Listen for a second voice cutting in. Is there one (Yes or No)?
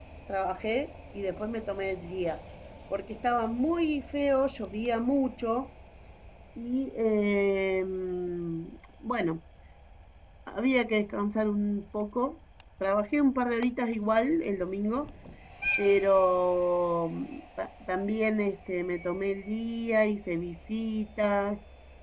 No